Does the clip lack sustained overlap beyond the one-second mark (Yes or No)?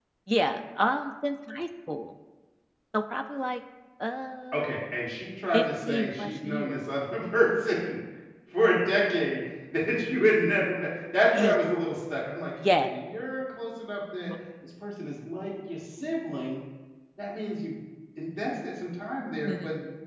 No